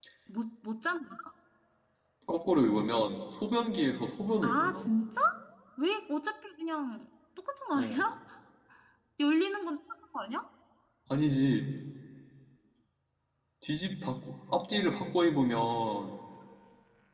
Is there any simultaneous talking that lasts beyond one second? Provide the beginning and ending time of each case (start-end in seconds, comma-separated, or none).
none